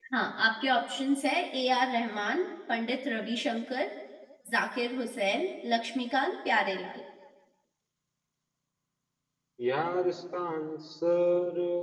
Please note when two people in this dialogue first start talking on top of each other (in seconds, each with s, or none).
none